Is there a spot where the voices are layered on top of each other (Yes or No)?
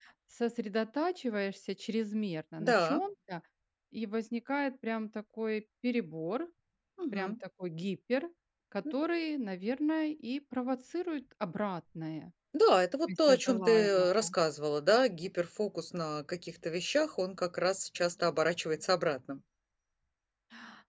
Yes